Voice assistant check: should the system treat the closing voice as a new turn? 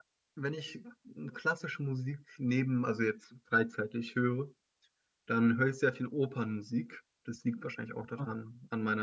No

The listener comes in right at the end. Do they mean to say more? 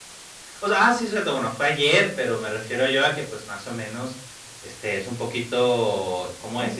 No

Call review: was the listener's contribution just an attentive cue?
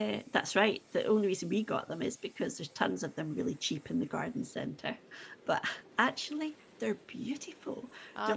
Yes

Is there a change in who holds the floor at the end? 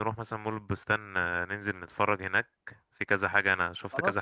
No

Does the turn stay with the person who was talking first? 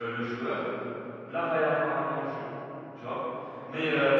Yes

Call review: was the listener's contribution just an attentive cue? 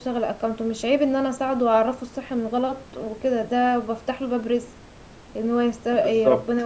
Yes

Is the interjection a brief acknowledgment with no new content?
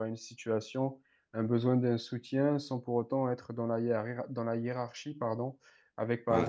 Yes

